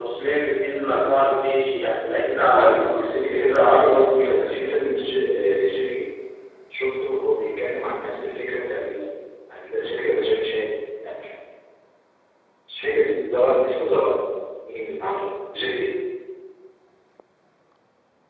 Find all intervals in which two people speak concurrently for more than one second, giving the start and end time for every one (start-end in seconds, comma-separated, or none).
2.6-4.5